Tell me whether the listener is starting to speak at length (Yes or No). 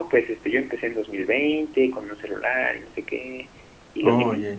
No